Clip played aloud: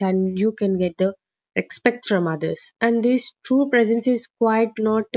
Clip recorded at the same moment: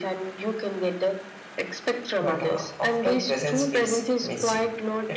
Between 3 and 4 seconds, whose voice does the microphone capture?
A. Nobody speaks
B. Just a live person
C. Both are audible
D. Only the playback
C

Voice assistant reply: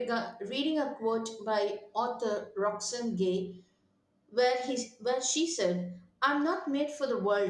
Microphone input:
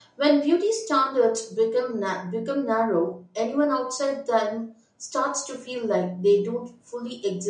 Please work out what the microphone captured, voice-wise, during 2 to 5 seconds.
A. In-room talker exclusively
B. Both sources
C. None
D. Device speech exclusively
A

